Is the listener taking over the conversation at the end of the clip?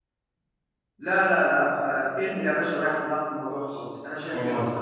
Yes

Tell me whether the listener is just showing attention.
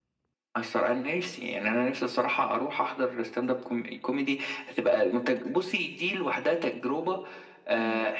Yes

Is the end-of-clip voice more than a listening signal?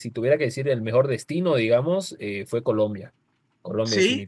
Yes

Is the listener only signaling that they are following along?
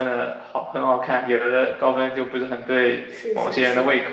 No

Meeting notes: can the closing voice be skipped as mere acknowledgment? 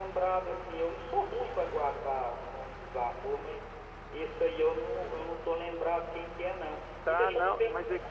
No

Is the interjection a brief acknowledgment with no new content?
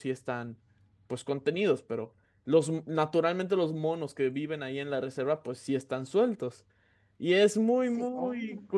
Yes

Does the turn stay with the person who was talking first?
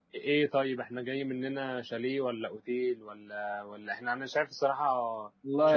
No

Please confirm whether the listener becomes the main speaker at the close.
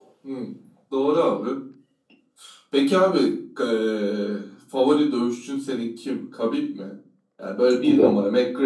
No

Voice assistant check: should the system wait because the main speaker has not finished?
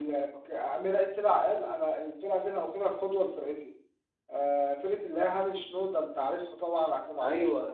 Yes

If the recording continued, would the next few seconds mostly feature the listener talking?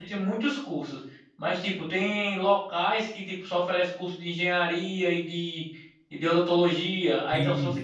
No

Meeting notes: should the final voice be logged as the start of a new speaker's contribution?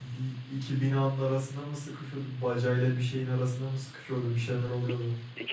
Yes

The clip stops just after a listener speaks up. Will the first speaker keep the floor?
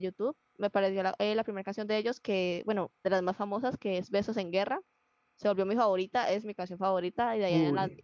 Yes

